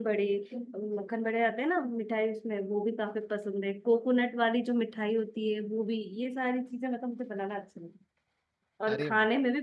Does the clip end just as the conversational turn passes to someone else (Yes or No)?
No